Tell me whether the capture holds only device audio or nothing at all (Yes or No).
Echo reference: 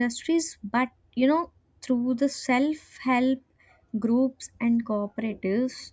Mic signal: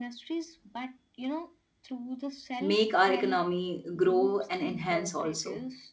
No